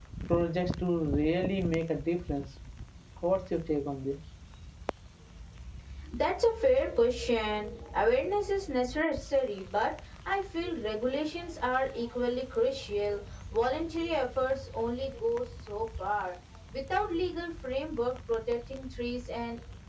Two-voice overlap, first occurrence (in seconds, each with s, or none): none